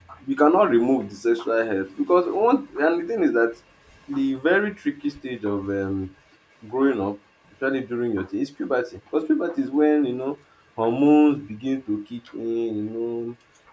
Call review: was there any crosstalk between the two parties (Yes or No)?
No